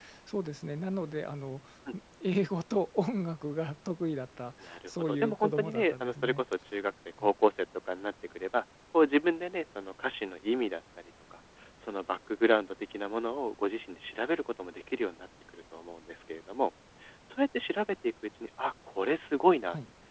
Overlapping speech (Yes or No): Yes